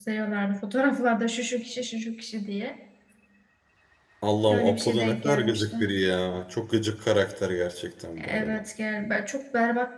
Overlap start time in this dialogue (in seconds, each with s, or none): 4.5 s